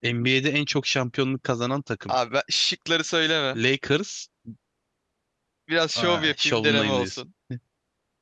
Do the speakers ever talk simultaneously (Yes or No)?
Yes